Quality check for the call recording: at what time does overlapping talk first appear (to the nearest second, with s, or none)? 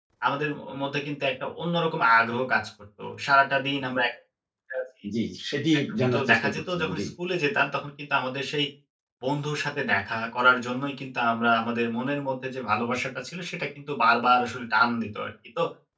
6 s